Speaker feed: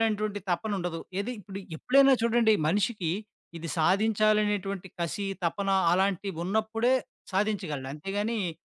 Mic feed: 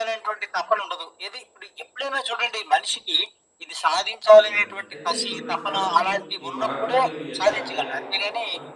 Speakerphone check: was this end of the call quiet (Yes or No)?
No